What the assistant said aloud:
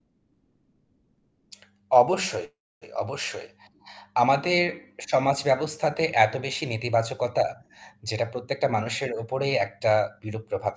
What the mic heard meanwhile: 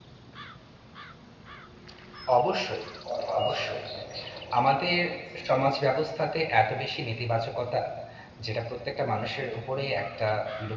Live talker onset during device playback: 3.1 s

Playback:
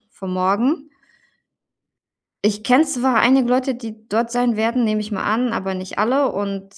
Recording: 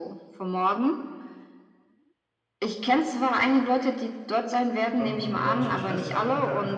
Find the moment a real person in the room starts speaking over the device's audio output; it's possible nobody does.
5.0 s

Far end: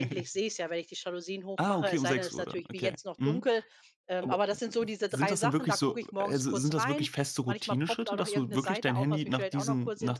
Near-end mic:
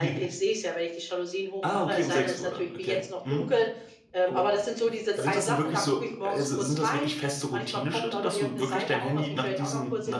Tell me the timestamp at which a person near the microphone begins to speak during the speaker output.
none

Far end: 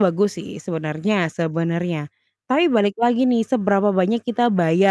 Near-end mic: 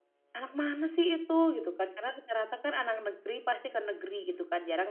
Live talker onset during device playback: 0.3 s

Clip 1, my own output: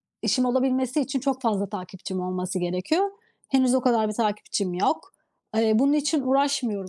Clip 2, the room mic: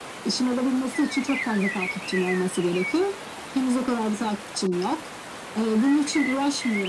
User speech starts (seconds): none

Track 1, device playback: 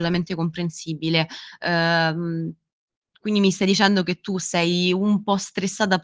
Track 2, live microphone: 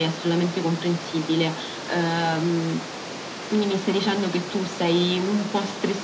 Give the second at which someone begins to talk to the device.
none

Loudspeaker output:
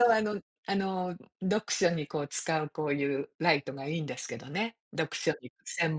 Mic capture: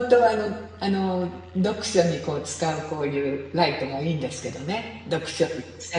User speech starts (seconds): none

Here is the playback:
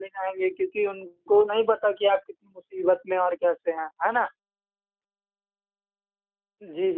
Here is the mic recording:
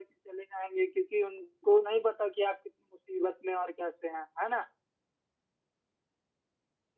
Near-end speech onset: none

